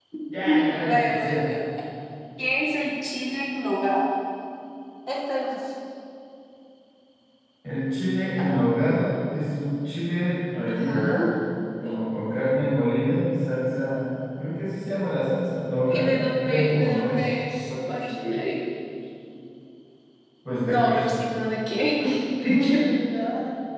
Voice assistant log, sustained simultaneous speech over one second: present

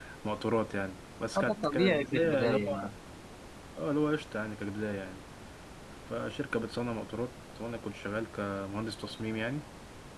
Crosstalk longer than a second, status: present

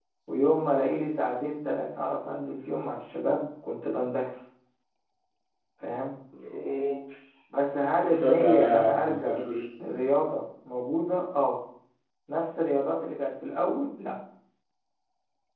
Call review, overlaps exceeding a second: present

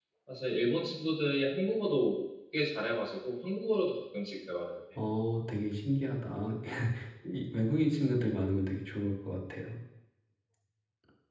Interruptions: none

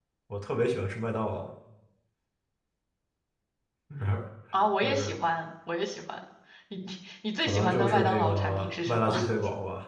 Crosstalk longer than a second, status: present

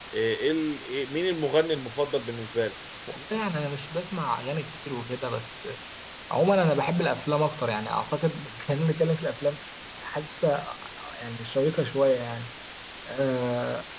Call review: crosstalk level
none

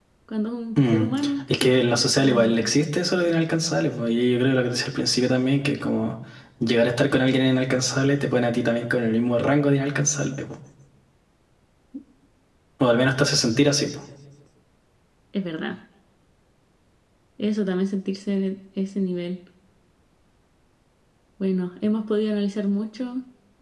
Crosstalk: present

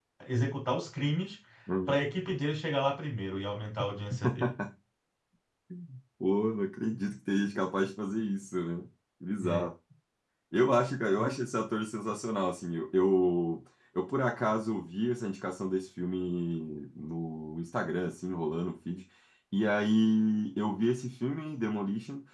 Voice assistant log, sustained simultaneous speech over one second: none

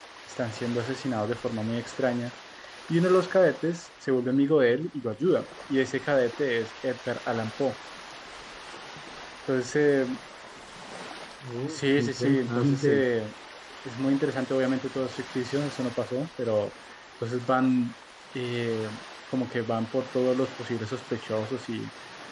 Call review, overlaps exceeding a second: present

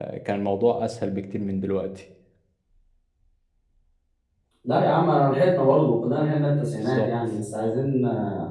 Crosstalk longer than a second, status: none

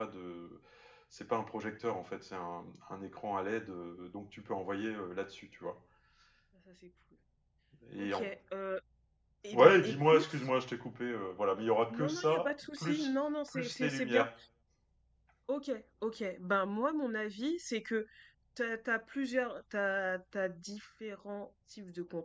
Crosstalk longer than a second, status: present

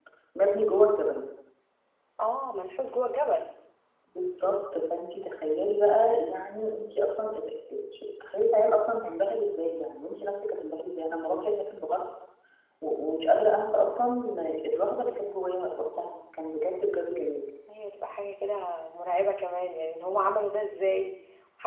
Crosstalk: none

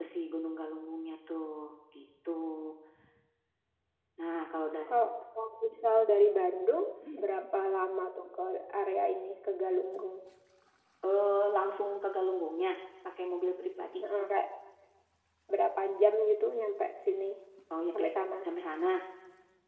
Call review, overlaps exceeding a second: none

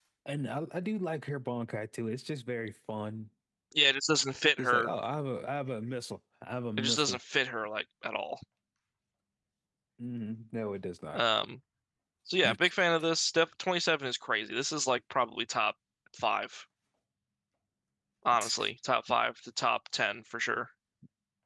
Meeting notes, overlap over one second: none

